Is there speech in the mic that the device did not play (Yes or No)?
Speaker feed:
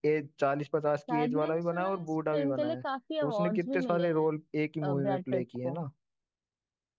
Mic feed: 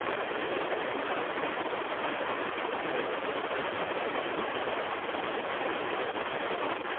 No